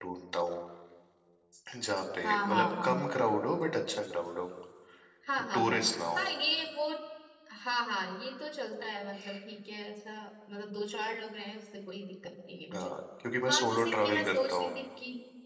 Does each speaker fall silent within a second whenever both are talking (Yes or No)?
No